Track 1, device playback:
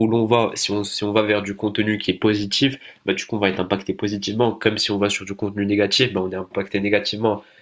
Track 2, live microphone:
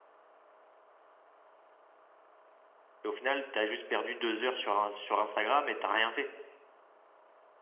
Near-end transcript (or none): et au final, tu as juste perdu deux heures sur, un- sur Instagram et t'as rien fait.